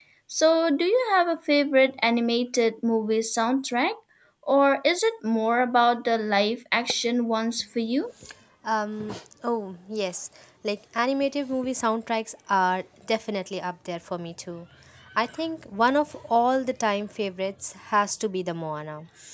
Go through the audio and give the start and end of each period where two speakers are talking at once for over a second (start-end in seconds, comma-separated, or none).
none